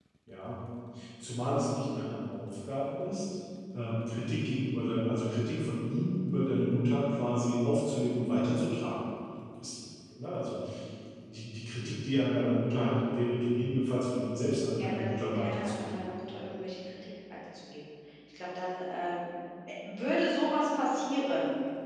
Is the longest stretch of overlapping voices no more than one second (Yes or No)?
No